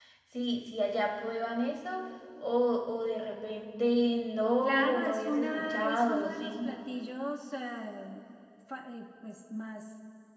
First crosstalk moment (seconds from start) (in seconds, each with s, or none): 4.6 s